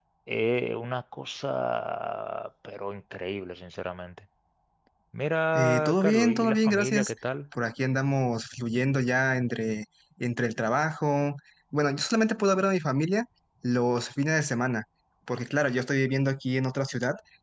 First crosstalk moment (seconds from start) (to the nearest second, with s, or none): 6 s